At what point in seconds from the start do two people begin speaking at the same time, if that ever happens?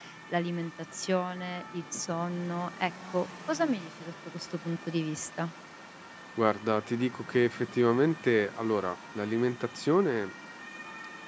none

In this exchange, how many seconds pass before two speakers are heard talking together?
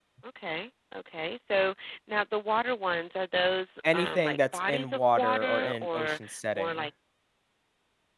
4 s

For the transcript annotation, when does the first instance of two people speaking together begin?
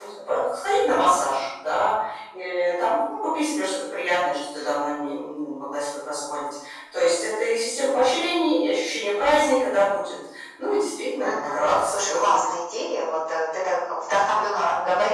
11 s

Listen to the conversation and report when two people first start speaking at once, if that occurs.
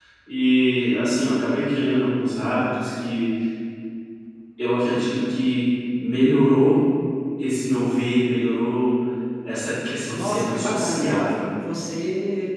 10 s

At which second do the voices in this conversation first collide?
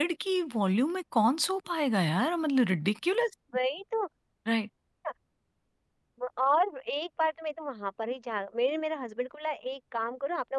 none

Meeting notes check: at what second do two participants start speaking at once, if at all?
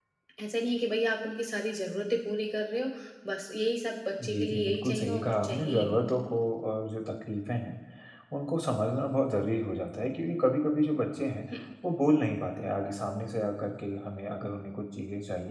4 s

